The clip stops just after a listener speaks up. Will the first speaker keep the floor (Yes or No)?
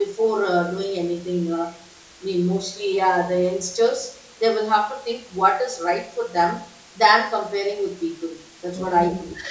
No